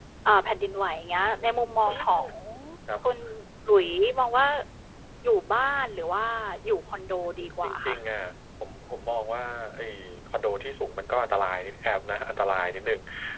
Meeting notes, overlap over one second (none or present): none